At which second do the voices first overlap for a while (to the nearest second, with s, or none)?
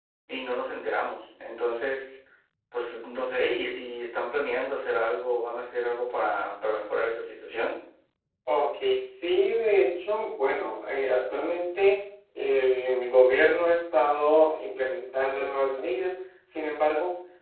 none